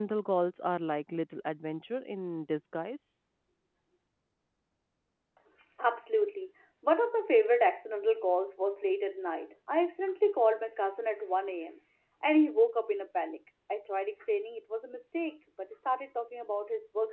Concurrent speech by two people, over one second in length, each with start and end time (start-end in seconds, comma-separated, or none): none